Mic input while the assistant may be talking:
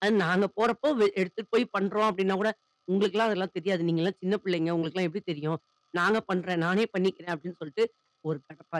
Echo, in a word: none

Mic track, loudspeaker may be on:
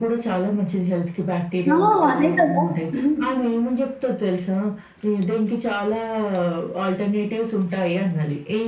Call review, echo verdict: present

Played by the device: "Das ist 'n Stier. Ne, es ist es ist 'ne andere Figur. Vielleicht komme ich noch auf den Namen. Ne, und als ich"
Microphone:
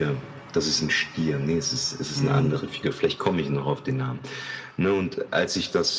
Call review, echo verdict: present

